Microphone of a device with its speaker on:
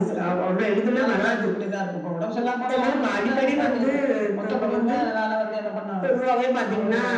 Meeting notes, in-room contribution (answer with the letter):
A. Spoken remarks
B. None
B